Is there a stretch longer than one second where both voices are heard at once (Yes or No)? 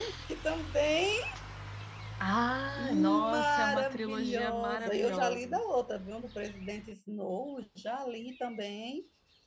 Yes